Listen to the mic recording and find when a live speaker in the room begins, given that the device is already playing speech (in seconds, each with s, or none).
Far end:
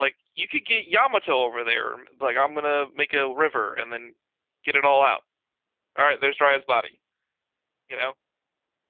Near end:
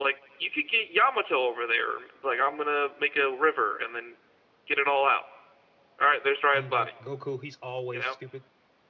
6.5 s